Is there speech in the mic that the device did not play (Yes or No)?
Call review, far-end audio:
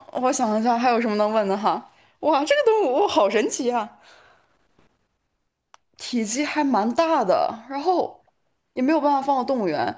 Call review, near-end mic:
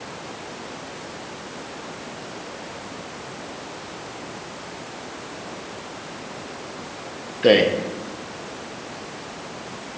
Yes